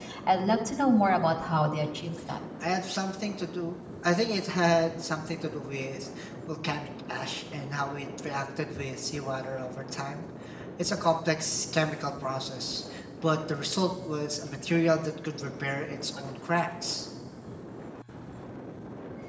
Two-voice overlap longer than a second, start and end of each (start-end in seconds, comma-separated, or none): none